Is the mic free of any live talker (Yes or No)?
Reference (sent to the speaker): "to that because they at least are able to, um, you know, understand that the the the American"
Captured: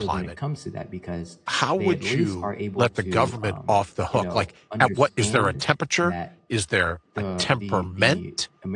No